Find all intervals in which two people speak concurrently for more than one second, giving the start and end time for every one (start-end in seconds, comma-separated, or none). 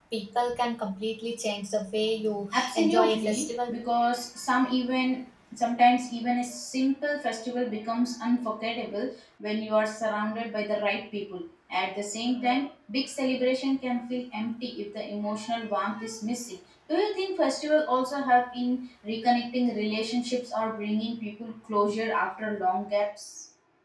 2.5-3.7